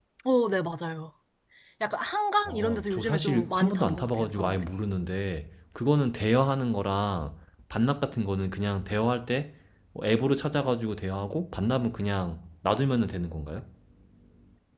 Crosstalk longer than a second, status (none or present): present